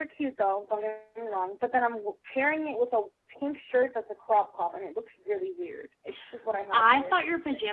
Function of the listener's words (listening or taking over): taking over